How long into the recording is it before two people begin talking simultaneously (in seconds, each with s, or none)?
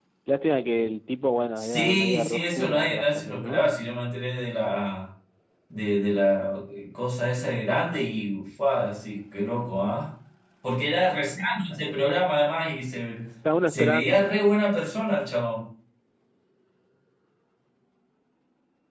1.6 s